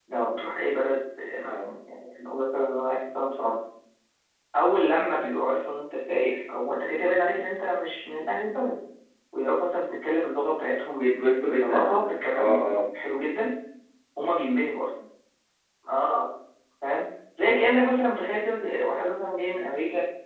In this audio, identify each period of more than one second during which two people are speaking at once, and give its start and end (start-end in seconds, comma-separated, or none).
10.9-12.6